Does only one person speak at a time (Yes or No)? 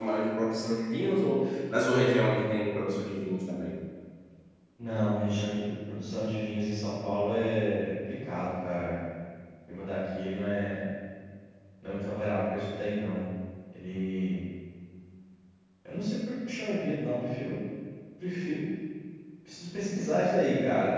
Yes